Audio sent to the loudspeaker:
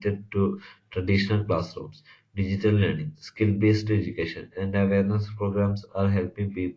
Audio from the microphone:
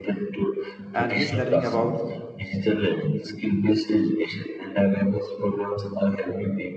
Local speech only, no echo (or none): and he's learning about